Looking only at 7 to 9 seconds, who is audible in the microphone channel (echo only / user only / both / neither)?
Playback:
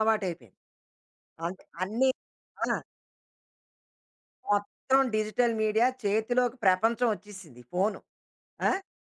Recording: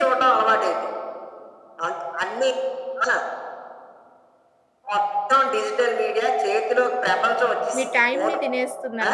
both